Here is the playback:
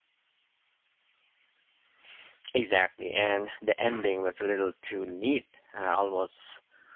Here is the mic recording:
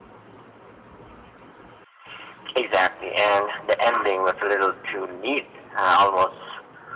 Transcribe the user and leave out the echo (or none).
none